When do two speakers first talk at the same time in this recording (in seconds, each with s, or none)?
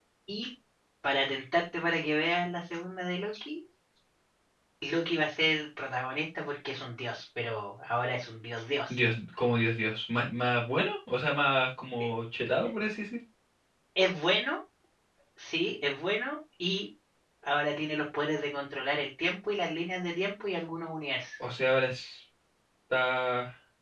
none